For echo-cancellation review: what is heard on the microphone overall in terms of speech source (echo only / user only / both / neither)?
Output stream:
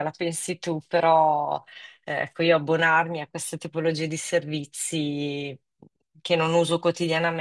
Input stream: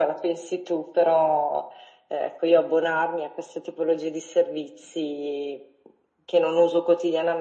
echo only